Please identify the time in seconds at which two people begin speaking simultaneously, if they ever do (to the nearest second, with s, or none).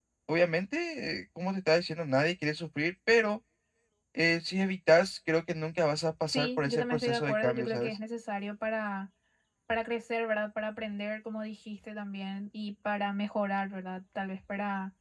6 s